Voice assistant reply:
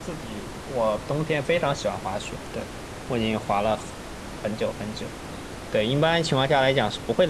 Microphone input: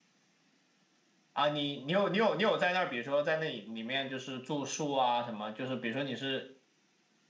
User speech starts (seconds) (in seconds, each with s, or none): 1.3 s